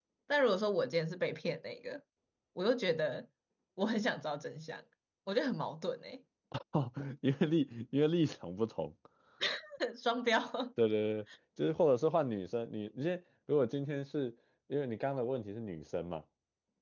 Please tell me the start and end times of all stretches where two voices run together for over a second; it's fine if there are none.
none

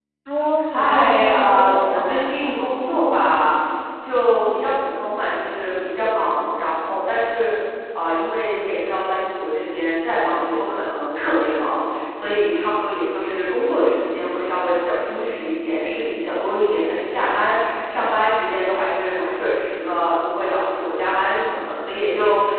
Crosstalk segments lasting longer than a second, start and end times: 0.7-2.3

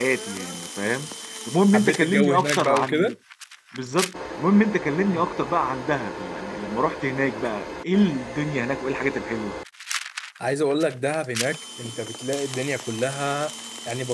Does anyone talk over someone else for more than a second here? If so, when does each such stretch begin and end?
1.7-3.1

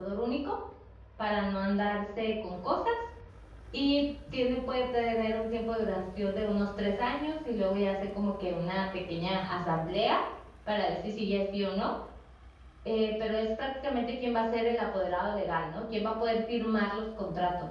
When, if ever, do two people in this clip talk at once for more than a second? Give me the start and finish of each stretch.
none

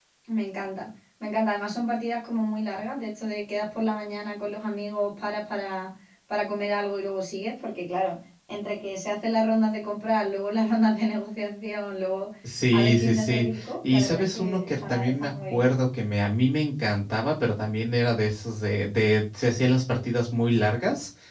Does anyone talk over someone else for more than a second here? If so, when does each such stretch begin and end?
12.7-15.7

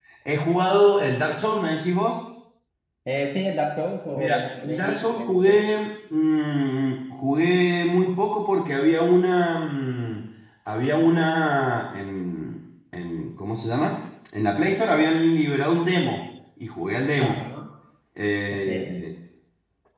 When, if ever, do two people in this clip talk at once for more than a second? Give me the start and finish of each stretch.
4.1-5.6

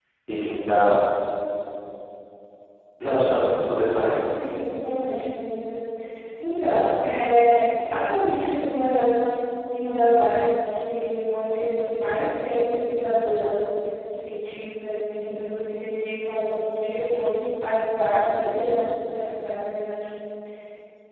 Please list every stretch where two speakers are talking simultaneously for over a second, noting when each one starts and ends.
none

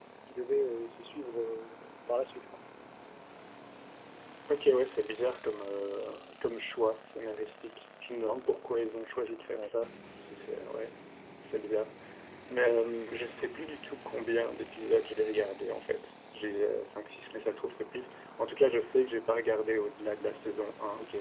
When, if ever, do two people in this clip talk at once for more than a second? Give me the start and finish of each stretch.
none

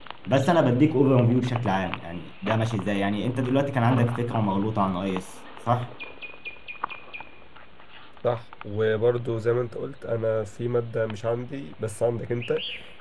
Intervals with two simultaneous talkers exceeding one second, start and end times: none

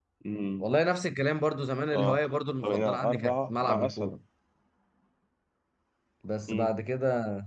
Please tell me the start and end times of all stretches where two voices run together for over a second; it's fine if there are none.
2.6-4.1

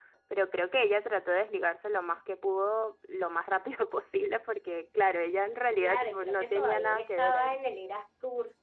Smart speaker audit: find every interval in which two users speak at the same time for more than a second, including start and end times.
5.8-7.5

